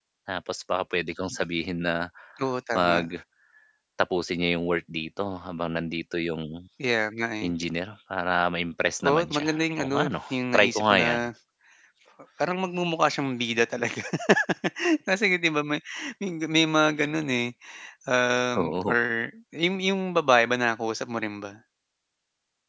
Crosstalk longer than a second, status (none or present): present